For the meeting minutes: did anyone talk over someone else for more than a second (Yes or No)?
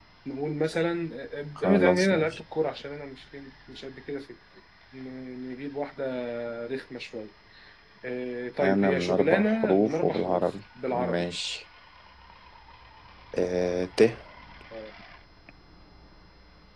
Yes